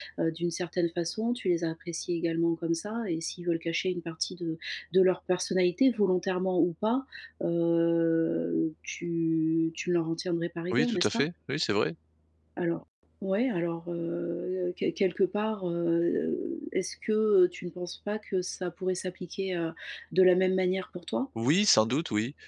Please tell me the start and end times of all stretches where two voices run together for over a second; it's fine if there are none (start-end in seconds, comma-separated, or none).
none